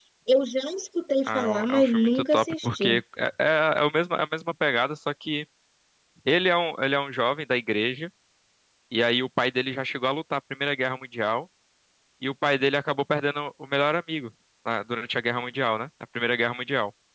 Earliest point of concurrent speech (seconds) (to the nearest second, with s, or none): 1 s